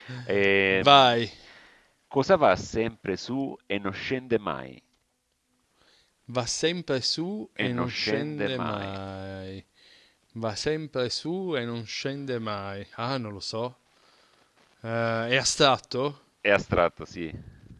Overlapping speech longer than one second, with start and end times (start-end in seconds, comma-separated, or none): 7.6-8.9